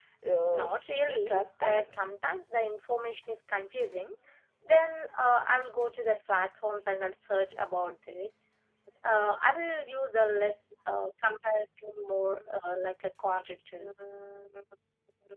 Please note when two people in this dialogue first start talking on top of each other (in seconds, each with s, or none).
0.5 s